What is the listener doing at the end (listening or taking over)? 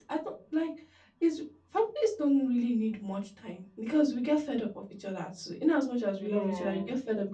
listening